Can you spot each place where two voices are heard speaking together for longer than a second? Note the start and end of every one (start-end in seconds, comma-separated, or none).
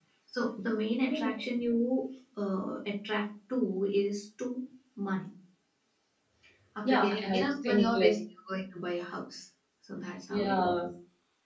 6.8-8.1